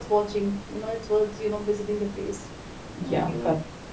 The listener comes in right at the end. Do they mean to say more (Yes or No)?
Yes